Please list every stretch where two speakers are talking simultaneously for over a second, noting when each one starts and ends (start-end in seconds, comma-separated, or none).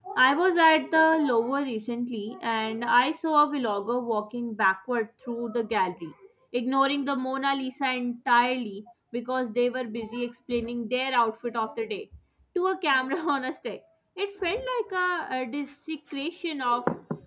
none